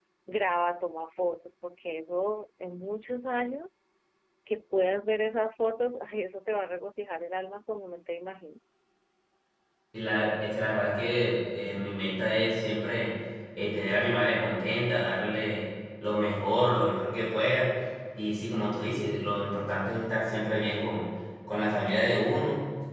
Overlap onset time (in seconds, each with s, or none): none